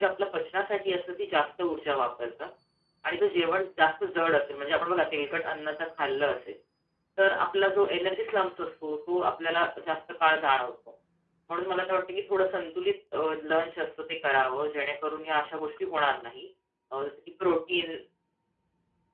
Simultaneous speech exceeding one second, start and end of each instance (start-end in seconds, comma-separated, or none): none